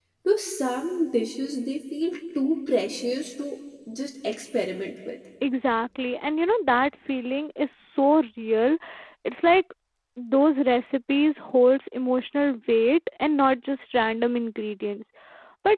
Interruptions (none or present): none